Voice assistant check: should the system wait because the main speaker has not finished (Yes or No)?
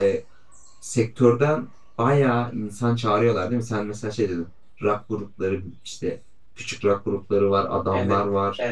No